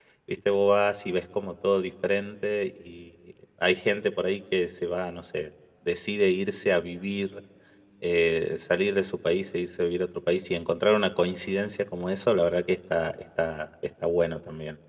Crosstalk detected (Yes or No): No